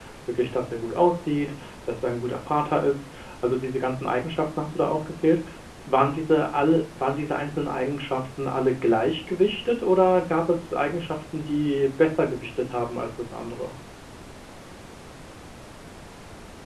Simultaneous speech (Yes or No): No